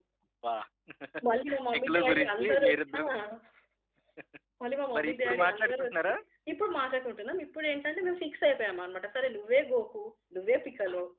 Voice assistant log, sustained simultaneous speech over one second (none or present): present